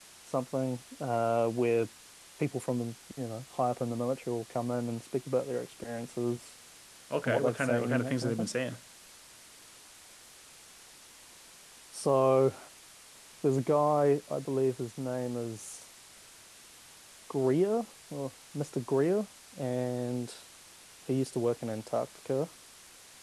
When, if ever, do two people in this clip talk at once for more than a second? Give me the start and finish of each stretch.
7.2-8.5

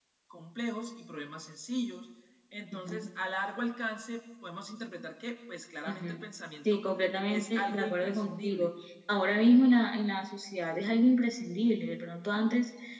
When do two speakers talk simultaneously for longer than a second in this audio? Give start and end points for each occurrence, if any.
7.3-8.7

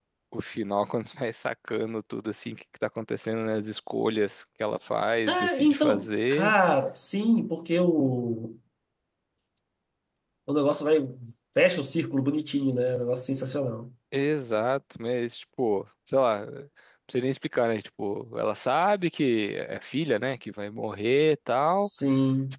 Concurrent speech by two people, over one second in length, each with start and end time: 5.3-6.5

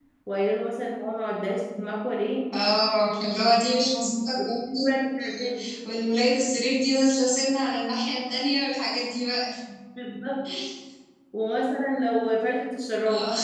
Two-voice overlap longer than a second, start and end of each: none

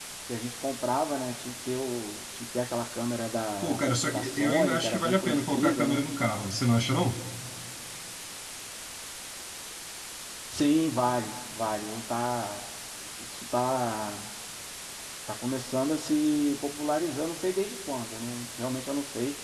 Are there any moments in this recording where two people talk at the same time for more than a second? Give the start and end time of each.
3.6-6.0

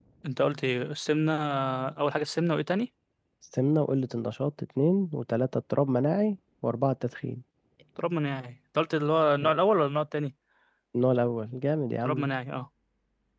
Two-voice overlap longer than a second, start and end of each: none

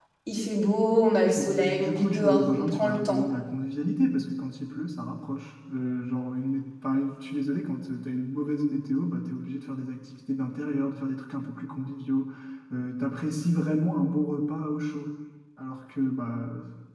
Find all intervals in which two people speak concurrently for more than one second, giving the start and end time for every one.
1.4-3.2

